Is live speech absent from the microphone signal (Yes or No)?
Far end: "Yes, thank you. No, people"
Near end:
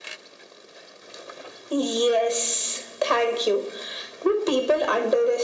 Yes